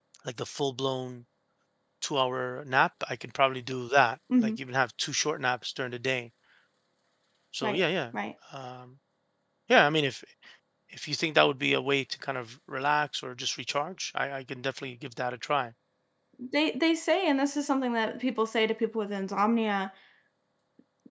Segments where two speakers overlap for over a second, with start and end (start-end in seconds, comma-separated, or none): none